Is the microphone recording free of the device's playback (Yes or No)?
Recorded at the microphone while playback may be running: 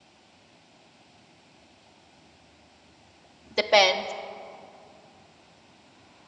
Yes